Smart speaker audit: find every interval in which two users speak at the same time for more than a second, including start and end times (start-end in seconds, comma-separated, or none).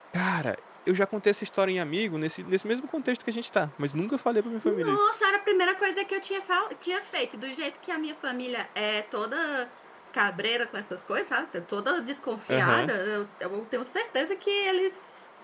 none